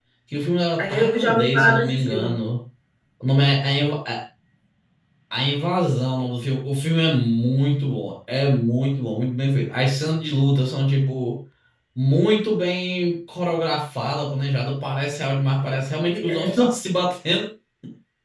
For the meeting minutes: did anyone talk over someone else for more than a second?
Yes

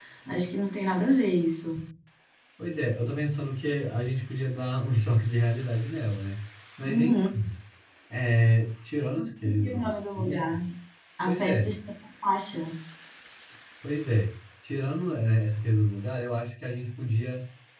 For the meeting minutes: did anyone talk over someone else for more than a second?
Yes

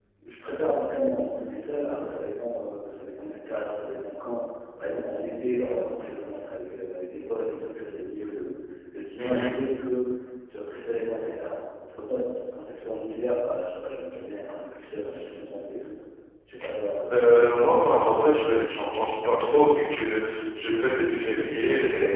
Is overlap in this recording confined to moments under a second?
Yes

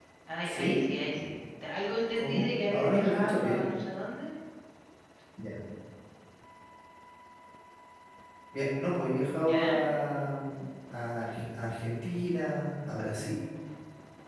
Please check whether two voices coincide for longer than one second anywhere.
Yes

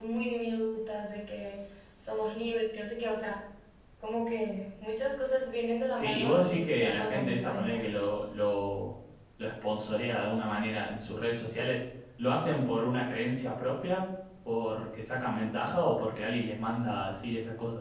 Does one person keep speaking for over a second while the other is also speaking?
Yes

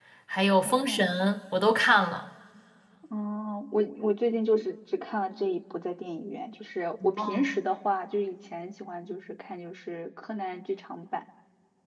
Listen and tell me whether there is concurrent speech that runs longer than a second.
No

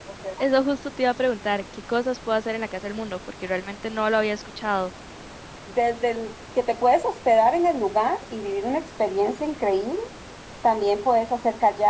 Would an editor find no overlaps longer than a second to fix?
Yes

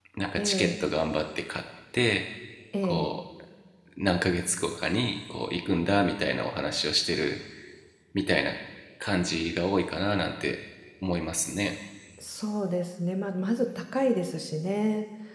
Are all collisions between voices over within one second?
Yes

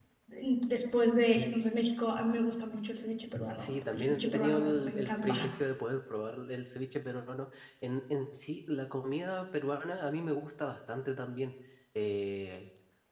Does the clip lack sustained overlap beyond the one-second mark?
No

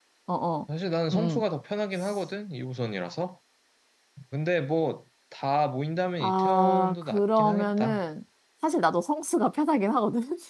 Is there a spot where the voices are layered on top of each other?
Yes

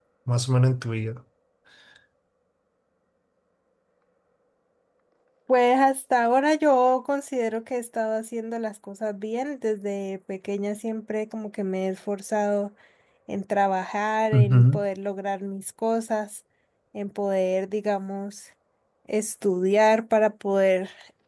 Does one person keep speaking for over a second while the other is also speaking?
No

